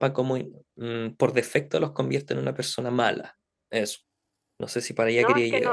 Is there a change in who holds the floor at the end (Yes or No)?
Yes